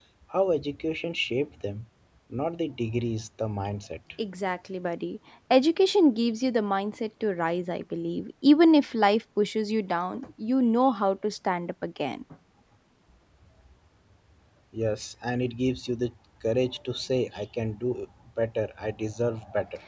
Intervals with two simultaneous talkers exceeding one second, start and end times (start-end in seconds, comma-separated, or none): none